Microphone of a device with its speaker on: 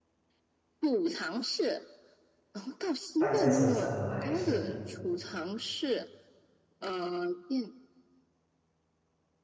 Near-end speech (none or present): present